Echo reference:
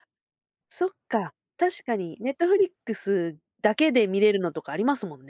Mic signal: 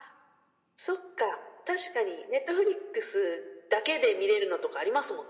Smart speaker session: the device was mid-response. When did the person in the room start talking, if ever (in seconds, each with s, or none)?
none